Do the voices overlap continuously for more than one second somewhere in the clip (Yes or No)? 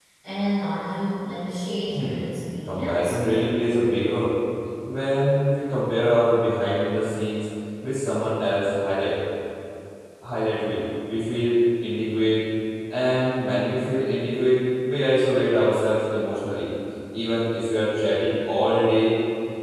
No